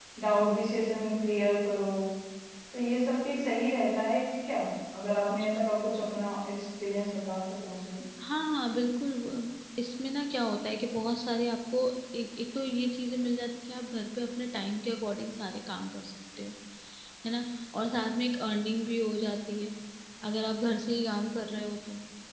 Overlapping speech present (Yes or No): No